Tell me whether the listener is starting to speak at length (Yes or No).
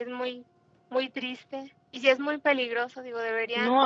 Yes